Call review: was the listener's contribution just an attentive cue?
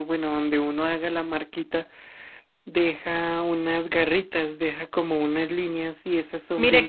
No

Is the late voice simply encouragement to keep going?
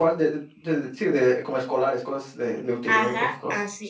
No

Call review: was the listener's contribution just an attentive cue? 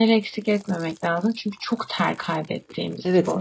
No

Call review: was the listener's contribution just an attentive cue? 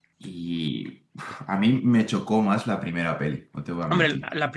No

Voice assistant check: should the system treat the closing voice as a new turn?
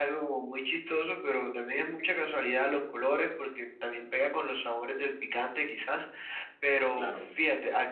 No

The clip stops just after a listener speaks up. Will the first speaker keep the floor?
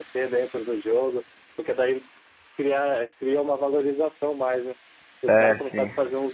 Yes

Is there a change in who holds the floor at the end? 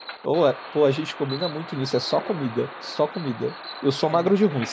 No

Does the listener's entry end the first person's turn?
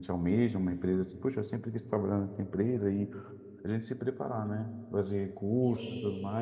No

